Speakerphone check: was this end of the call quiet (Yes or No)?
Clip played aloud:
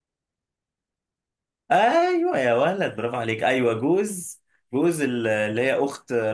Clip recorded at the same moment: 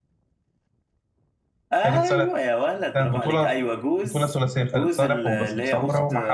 No